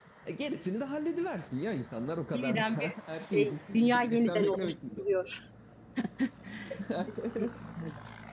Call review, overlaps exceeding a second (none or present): present